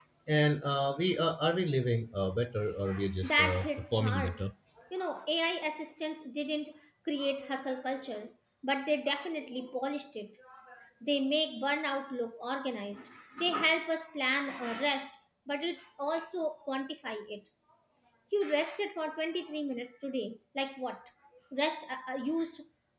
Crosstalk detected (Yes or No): Yes